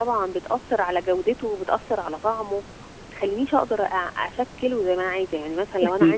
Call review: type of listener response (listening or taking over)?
taking over